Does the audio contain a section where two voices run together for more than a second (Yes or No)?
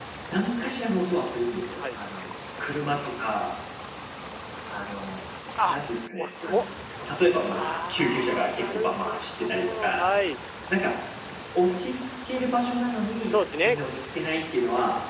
Yes